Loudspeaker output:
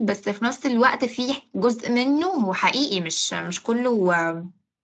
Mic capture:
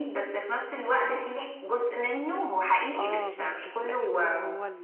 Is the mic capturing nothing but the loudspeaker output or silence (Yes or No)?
No